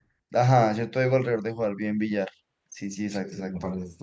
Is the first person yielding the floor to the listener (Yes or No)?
Yes